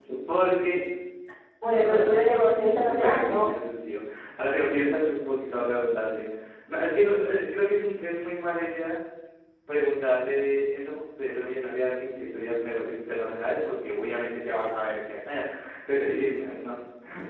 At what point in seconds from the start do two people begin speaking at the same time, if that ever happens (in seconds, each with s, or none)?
1.6 s